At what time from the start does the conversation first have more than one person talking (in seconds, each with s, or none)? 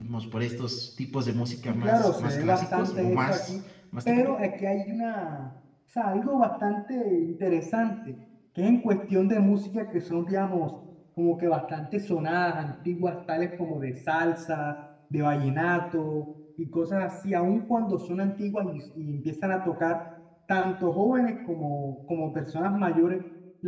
1.7 s